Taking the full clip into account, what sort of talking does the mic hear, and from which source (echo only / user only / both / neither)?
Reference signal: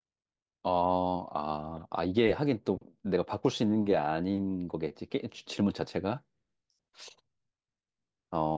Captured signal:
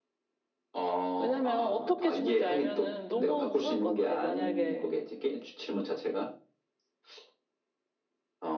both